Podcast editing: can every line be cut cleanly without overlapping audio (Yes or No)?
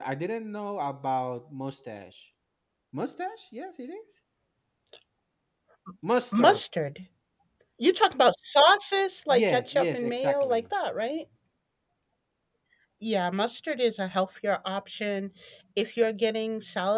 No